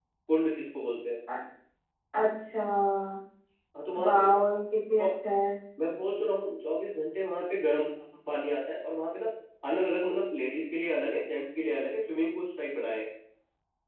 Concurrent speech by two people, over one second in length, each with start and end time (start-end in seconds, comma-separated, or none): none